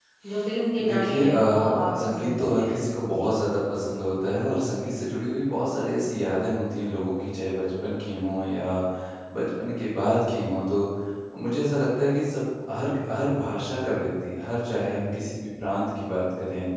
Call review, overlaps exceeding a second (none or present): present